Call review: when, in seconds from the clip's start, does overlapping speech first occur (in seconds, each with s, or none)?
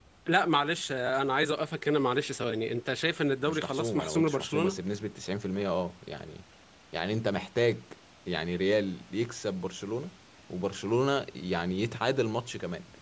3.5 s